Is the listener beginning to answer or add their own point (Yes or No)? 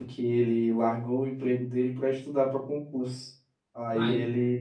No